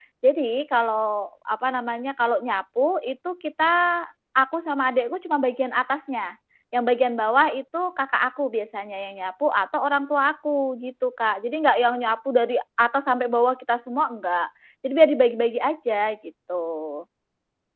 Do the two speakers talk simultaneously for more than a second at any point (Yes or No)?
No